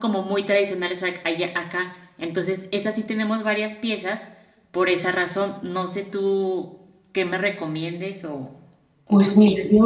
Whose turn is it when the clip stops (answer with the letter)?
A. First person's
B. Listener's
B